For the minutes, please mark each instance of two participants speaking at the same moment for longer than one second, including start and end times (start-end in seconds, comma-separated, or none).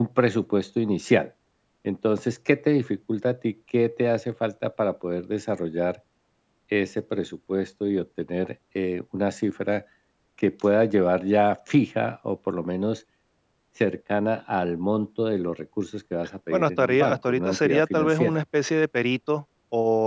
16.5-18.4